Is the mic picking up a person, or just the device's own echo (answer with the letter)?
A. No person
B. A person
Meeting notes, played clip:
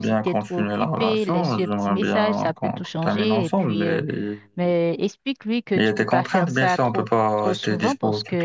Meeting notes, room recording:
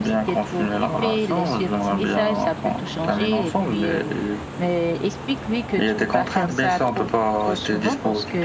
A